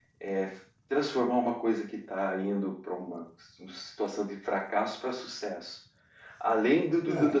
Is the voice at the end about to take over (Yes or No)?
Yes